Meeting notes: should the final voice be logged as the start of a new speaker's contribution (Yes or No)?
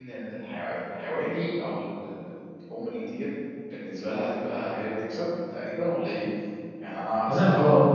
Yes